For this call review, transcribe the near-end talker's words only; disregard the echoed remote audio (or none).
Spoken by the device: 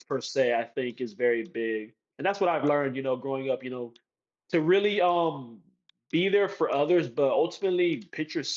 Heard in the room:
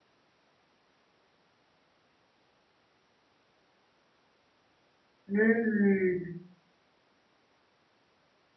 Mm.